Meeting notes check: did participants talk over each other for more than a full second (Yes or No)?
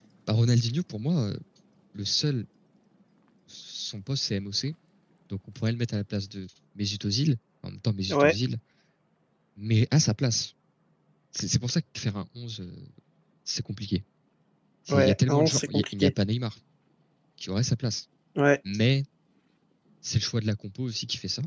Yes